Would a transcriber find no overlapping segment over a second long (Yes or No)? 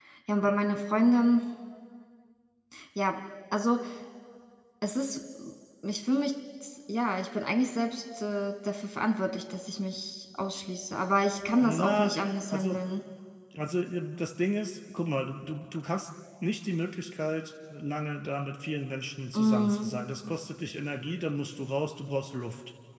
No